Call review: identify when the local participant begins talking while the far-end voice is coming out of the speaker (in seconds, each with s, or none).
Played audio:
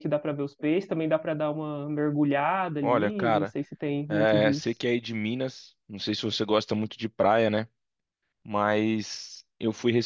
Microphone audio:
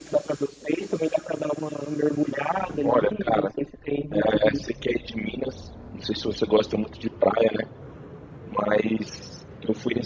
none